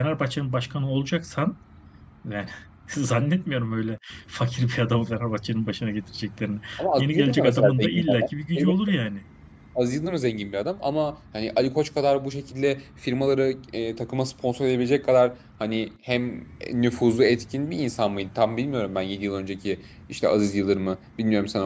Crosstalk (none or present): present